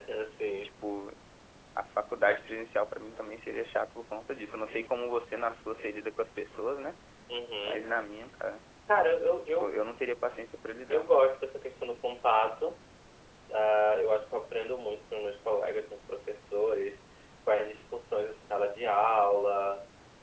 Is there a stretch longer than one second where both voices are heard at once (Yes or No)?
No